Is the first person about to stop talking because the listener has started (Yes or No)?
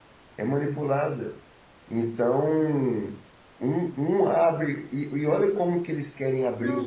Yes